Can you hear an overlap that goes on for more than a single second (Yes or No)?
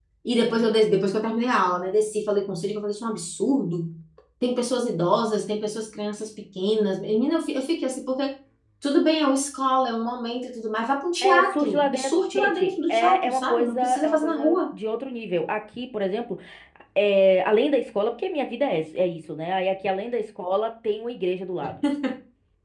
Yes